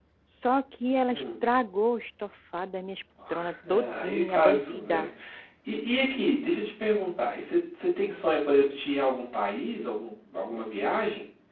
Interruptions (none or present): present